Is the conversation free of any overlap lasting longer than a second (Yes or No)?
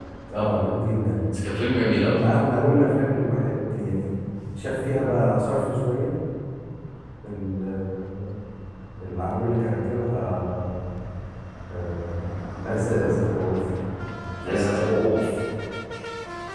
Yes